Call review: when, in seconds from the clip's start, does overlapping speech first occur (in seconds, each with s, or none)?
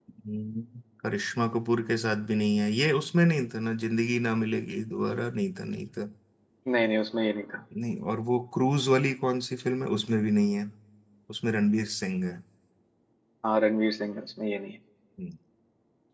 none